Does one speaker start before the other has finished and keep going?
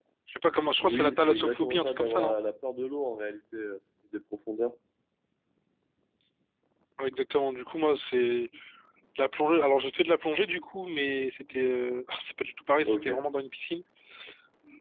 Yes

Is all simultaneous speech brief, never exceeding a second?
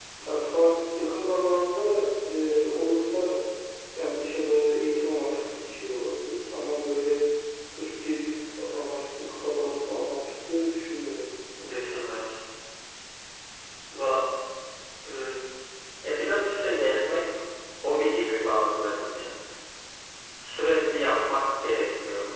Yes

